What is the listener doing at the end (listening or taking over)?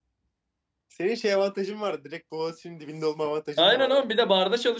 taking over